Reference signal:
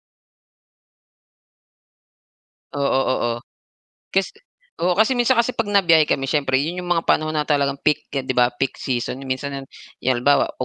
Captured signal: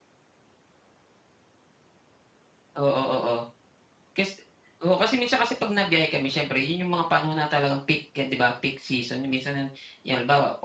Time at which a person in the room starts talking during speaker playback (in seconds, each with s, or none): none